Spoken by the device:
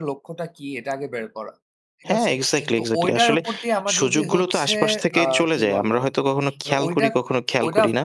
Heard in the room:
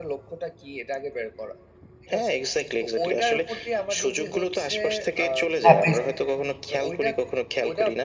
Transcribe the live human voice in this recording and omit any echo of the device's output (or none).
হ্যাপিস